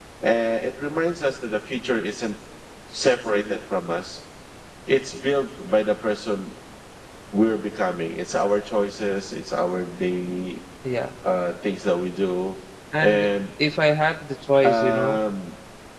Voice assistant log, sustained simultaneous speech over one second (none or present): none